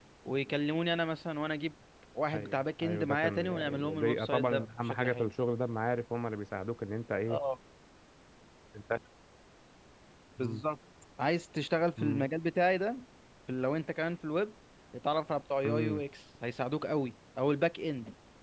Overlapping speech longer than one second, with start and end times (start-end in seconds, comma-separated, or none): 2.3-5.3